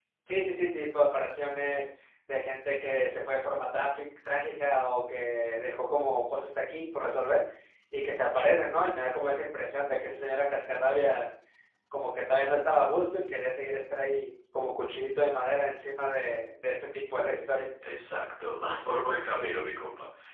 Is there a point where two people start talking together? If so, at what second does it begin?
none

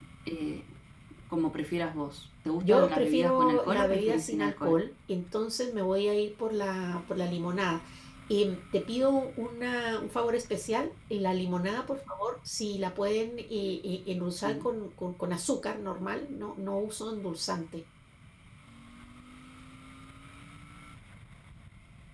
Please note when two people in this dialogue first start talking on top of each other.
2.6 s

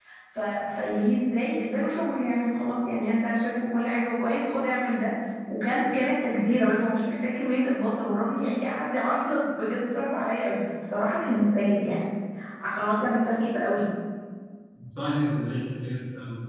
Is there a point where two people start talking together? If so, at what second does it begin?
none

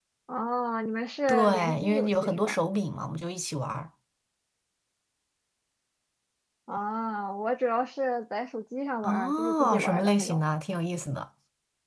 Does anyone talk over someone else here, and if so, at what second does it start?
1.3 s

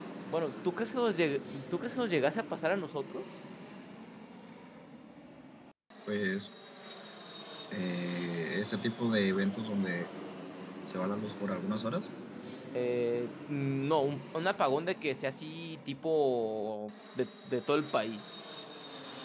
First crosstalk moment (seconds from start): none

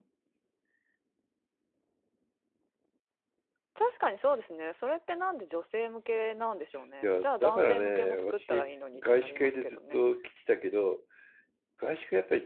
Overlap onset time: 7.0 s

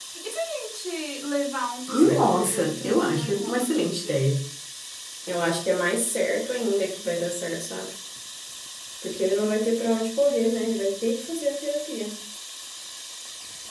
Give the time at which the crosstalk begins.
1.9 s

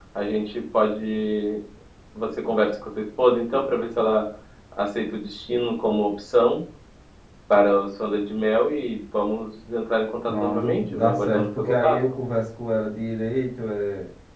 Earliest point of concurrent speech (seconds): 10.3 s

